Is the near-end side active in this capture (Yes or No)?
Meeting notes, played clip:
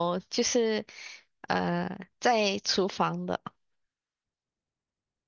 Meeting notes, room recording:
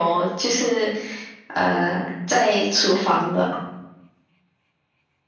No